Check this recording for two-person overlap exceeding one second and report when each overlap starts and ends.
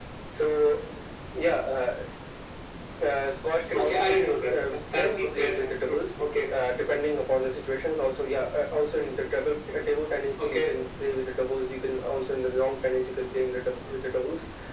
3.8-6.1

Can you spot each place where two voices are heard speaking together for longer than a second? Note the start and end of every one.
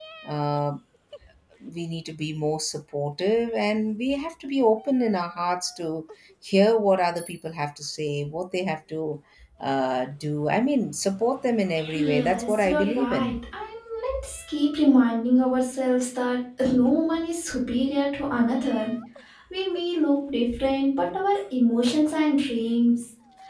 11.9-13.4

